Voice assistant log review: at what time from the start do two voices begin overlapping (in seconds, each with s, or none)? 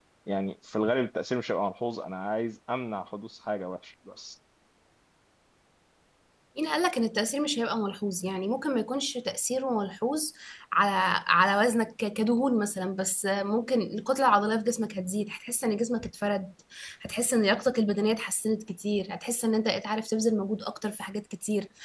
none